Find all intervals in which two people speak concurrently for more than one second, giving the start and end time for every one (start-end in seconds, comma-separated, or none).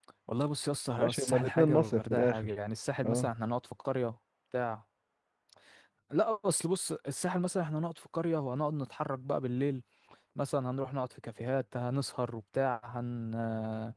1.0-2.5